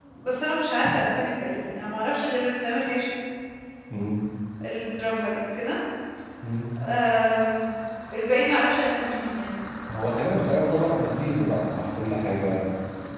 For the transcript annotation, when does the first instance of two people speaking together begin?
none

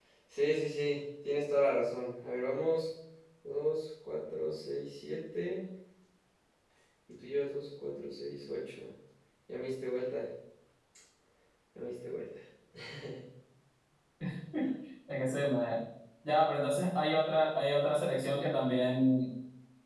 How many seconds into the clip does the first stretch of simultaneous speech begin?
none

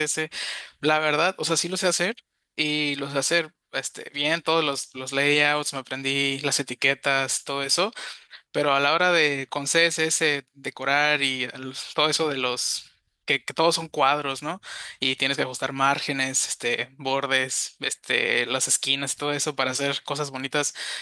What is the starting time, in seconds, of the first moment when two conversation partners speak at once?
none

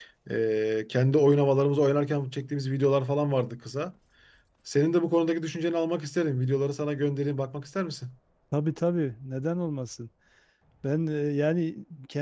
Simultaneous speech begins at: none

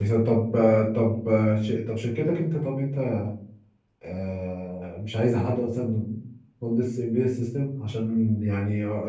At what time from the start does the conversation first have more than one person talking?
none

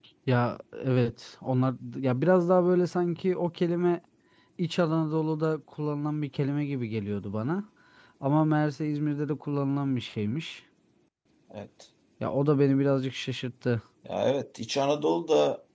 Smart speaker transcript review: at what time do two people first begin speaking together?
none

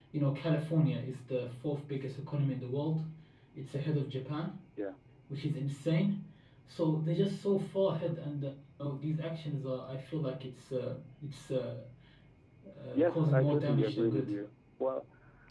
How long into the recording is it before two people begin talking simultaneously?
12.9 s

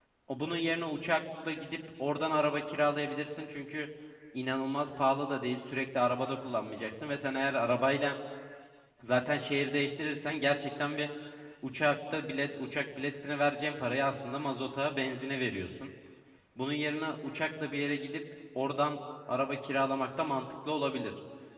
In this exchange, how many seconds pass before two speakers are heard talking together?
none

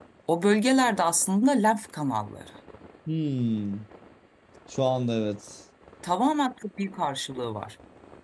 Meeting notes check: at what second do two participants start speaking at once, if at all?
none

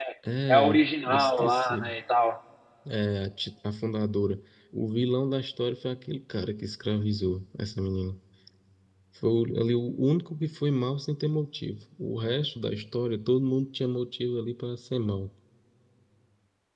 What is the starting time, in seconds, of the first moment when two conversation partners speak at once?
0.5 s

